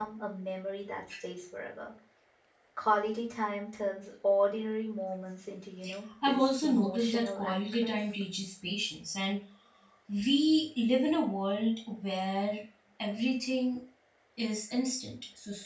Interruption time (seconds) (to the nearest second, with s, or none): 6 s